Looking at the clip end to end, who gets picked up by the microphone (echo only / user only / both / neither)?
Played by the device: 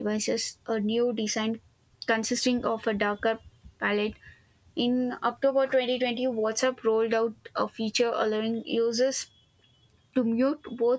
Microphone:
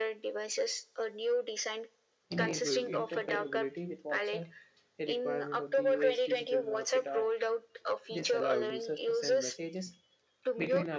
both